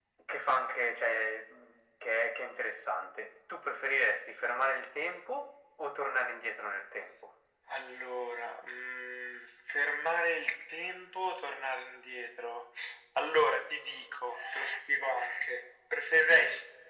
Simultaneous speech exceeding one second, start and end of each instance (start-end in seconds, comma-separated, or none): none